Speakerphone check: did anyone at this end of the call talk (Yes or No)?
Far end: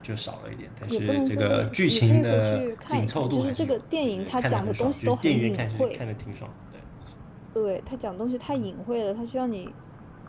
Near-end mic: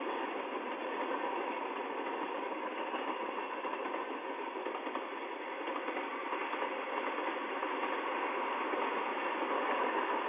No